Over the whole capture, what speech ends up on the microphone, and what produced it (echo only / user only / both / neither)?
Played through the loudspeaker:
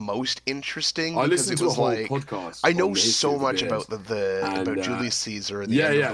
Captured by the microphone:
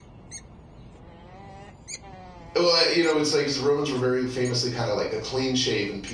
user only